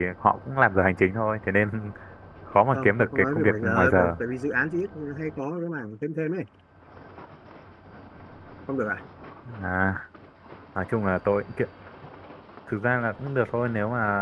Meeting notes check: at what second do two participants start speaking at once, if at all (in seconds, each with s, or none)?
2.7 s